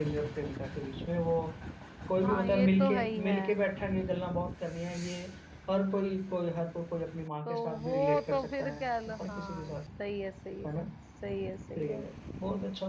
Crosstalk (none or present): present